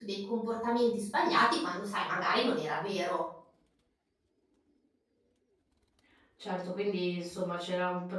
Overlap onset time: none

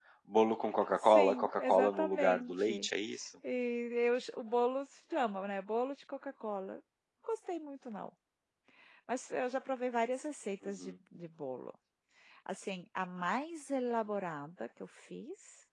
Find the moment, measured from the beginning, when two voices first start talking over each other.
1.0 s

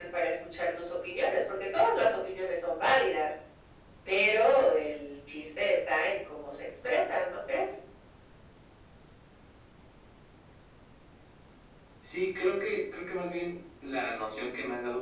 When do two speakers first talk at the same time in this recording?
none

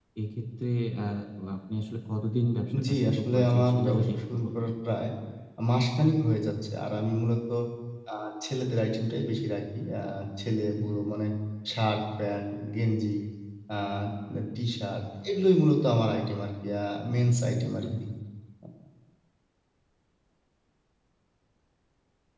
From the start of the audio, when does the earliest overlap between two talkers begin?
2.9 s

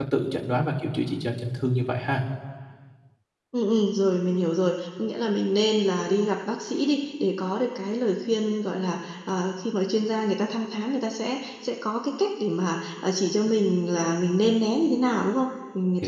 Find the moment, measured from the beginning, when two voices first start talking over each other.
none

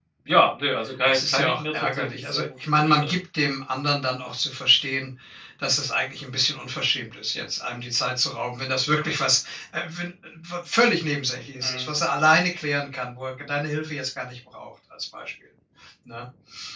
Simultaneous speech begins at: 1.0 s

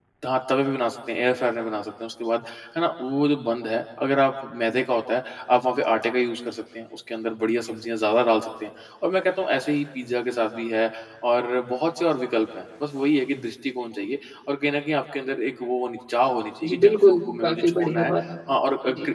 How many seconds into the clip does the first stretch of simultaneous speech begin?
16.6 s

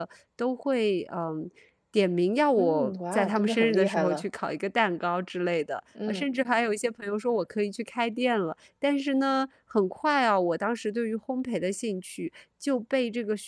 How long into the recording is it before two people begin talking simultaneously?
2.5 s

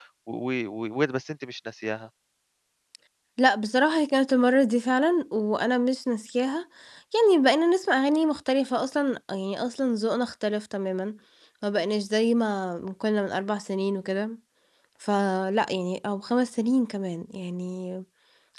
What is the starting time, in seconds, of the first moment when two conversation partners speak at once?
none

